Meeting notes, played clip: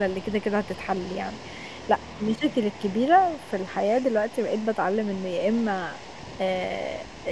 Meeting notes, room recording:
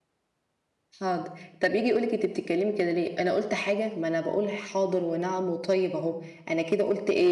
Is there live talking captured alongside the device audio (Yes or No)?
Yes